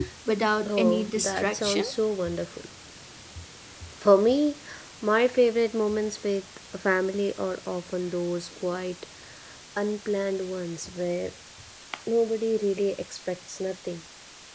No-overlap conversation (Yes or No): No